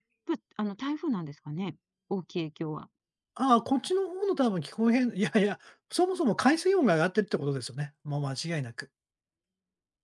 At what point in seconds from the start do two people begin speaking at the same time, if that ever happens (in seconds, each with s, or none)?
none